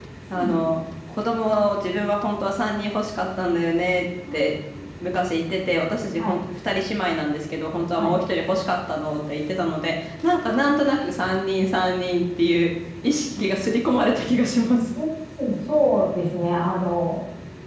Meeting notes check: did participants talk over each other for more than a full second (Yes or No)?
No